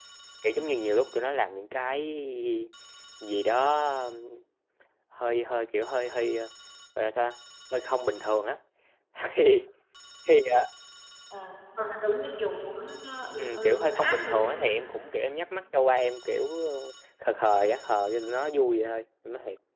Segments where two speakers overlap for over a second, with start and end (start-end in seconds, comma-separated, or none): 13.4-14.8